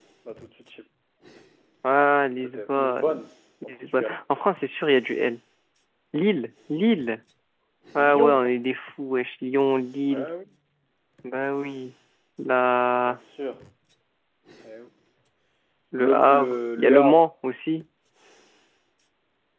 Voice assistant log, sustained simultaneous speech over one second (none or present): present